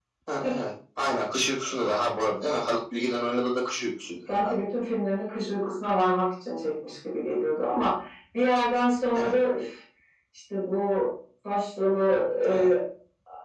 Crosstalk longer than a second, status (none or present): none